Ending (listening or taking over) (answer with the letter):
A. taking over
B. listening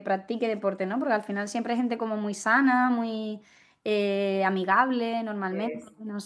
A